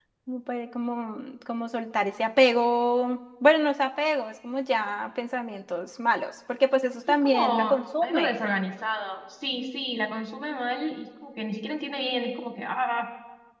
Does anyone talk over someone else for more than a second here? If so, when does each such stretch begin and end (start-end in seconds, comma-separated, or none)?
7.1-8.5